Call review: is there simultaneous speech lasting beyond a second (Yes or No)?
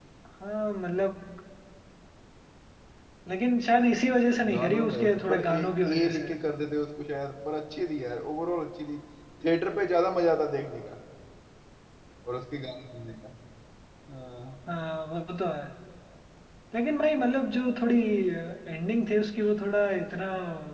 Yes